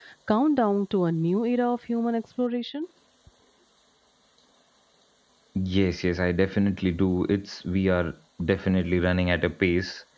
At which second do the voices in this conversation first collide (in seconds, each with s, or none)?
none